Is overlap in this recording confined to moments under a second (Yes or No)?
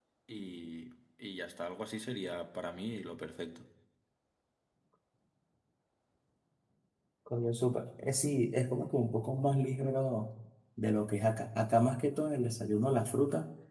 Yes